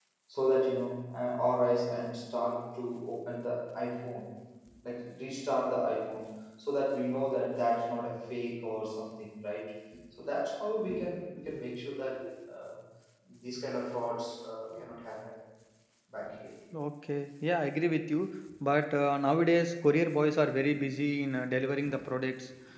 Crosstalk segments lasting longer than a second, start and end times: none

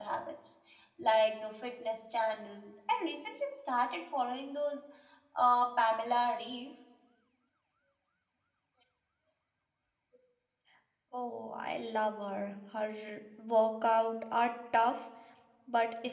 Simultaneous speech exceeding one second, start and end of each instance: none

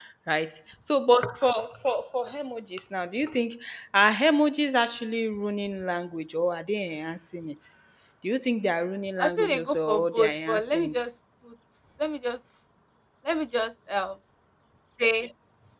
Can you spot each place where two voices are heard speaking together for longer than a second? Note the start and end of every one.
9.2-11.0

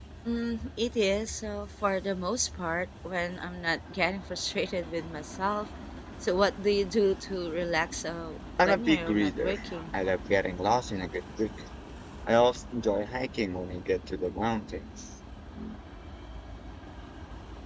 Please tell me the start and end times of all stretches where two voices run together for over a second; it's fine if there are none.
8.6-10.0

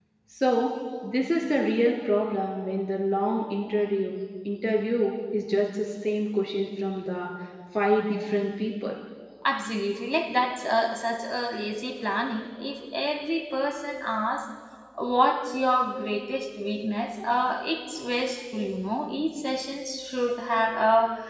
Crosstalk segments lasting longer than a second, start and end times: none

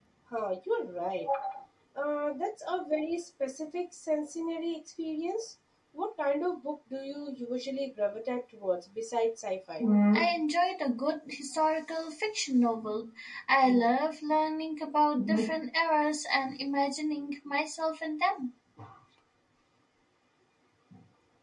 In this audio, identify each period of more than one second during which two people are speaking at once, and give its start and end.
none

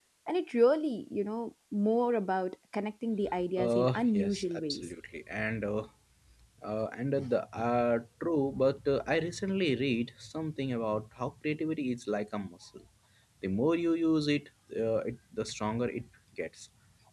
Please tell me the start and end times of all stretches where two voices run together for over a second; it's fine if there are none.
3.6-4.8

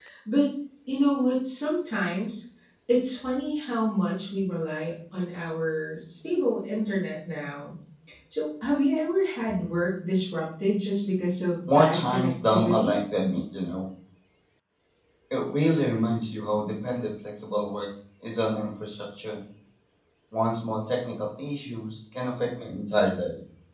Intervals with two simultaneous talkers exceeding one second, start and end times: 11.7-13.0

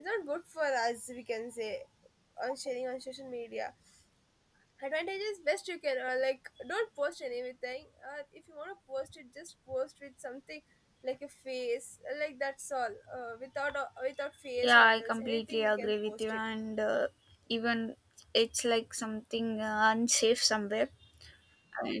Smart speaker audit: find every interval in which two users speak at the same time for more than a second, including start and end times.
14.7-16.4

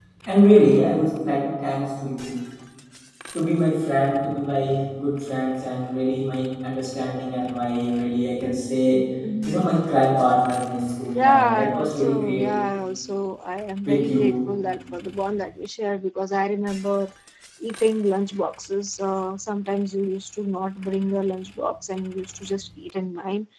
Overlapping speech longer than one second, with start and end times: 11.2-12.4

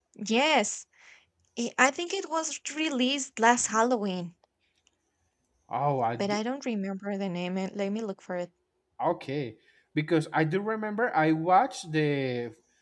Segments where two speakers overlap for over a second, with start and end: none

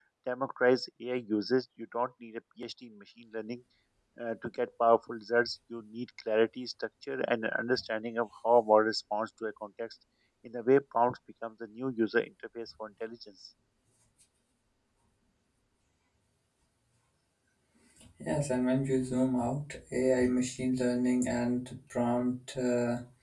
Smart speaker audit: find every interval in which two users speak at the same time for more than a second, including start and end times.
none

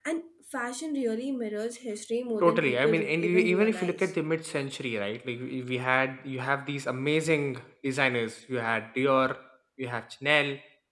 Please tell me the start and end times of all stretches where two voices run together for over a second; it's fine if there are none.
2.4-4.1

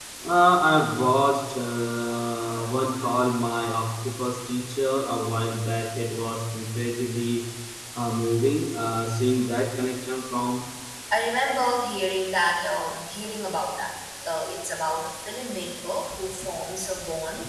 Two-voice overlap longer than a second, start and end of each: none

